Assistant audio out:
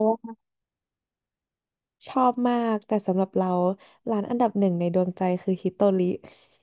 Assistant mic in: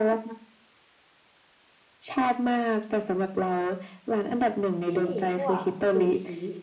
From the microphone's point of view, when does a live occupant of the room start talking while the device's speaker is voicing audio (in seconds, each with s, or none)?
4.9 s